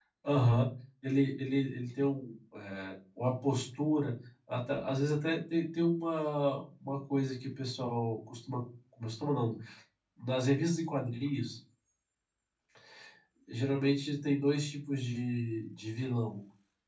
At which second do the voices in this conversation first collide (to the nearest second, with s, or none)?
none